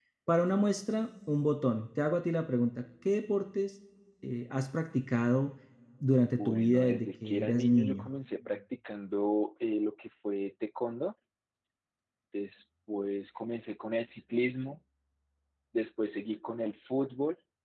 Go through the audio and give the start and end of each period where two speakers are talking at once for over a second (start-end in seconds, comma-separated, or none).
6.4-8.1